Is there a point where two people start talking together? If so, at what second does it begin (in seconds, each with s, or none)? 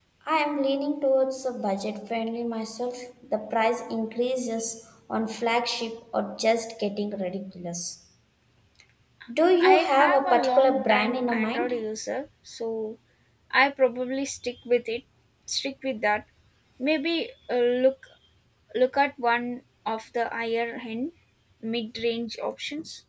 9.6 s